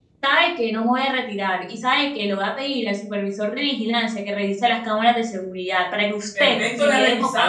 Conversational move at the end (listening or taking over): taking over